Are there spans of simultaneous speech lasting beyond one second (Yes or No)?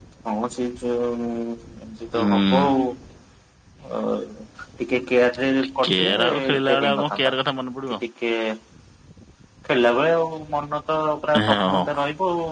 Yes